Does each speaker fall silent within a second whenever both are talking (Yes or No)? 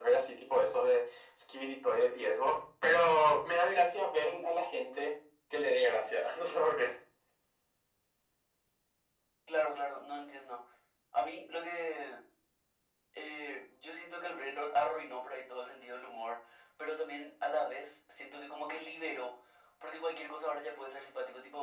Yes